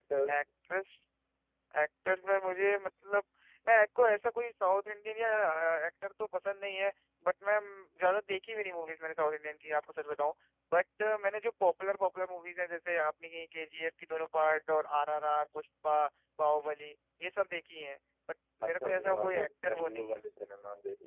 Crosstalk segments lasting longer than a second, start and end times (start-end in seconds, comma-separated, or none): 18.6-20.2